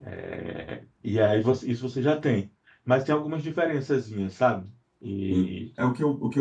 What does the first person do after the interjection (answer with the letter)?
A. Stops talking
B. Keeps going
A